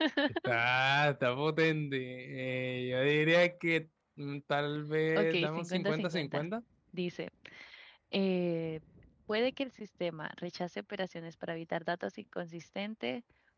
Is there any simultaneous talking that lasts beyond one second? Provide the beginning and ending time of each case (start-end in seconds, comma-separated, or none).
5.2-6.5